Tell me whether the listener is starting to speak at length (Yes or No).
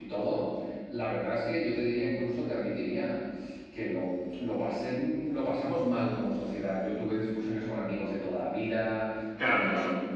No